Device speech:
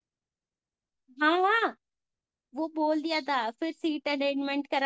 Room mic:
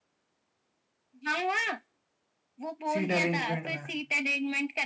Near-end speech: present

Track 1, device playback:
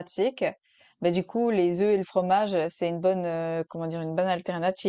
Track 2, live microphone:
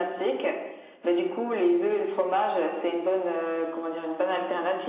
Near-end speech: none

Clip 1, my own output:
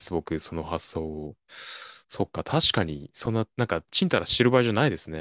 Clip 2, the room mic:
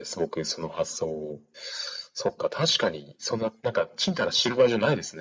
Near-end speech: none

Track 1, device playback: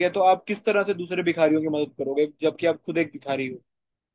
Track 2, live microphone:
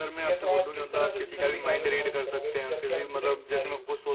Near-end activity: present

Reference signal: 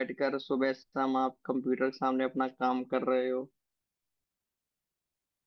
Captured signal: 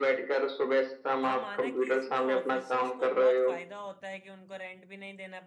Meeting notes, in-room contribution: present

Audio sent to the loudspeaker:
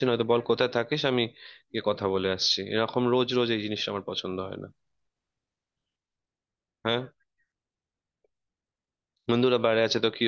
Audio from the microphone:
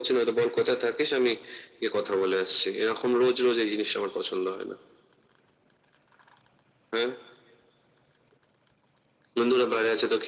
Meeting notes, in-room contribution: none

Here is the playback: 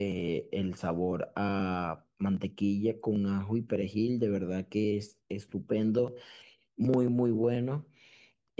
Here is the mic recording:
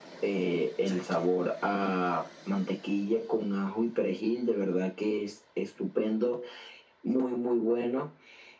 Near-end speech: present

